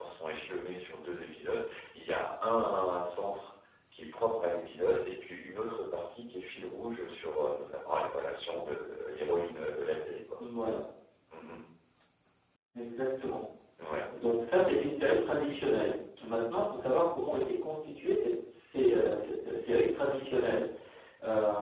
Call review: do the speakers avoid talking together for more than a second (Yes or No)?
Yes